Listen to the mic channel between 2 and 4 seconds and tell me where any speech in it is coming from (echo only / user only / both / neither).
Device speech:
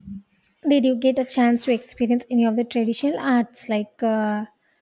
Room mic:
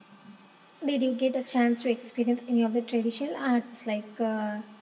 echo only